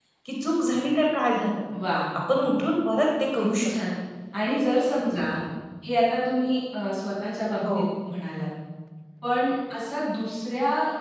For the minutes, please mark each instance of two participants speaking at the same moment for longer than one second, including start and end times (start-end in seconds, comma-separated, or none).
none